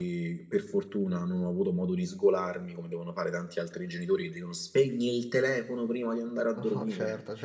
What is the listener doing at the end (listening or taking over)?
taking over